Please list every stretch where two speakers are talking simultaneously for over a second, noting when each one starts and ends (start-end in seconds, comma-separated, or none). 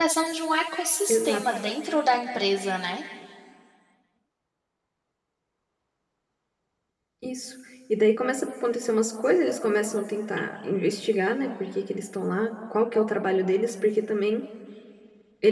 none